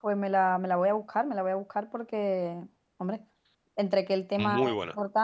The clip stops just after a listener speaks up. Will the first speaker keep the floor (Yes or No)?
Yes